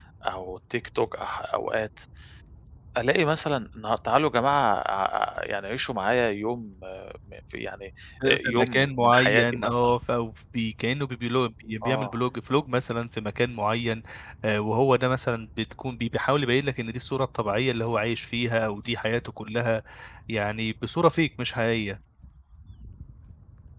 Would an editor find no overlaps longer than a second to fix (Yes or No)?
No